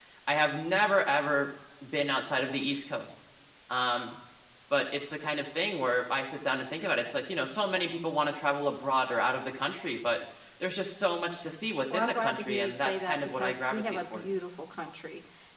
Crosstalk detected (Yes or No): Yes